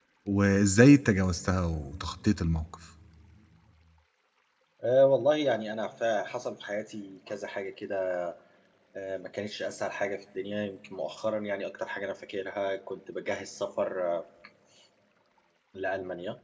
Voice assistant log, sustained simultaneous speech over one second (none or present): none